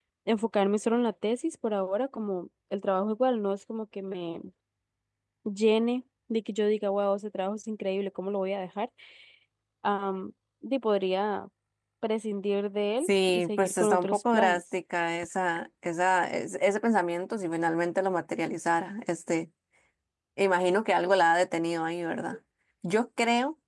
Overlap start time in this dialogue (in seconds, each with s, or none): 13.0 s